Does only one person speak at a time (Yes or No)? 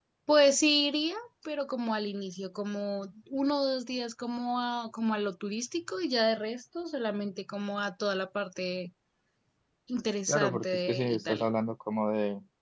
No